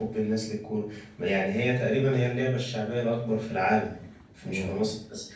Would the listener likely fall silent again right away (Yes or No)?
Yes